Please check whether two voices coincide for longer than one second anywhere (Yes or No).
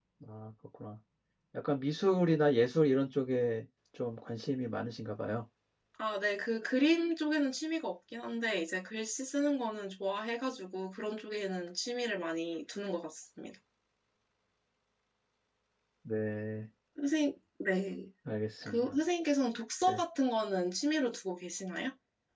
No